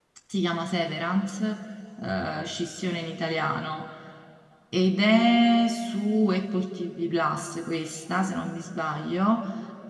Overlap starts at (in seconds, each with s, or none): none